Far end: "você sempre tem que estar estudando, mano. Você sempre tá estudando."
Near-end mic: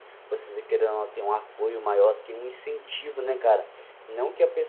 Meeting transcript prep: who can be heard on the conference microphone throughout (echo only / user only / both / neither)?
user only